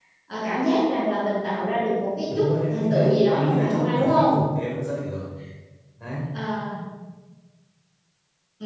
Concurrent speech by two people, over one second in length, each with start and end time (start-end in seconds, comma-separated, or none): 2.3-4.3